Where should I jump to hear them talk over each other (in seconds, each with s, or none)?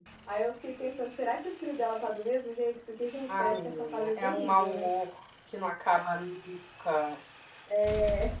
3.3 s